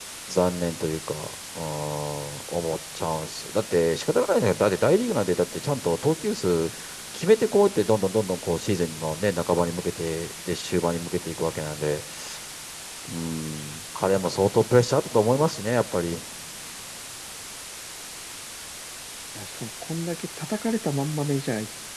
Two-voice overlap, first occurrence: none

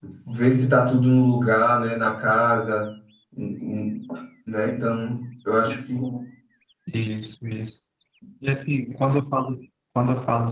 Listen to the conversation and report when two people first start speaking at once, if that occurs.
none

